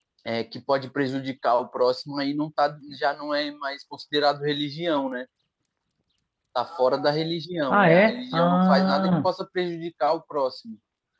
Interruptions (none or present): present